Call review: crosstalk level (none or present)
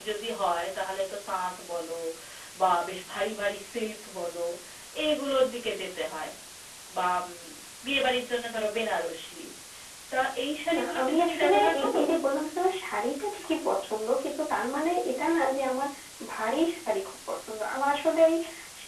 present